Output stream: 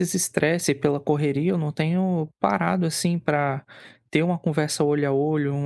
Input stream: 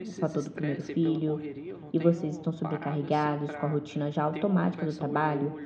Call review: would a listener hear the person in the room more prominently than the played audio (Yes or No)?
Yes